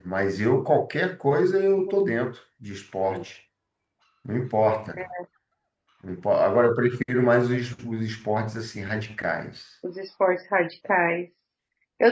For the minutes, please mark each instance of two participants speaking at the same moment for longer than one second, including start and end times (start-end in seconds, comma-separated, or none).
none